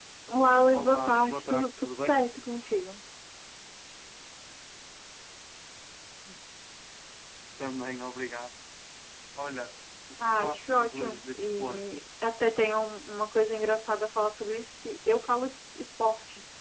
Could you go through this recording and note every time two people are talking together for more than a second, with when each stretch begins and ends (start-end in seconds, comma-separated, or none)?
0.7-2.2, 10.2-11.8